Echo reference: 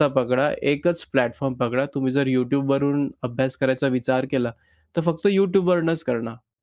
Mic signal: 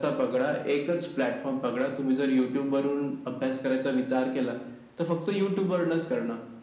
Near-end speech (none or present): none